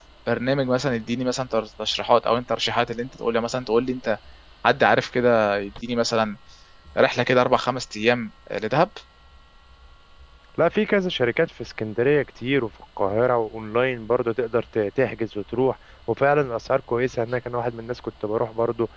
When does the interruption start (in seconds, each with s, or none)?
none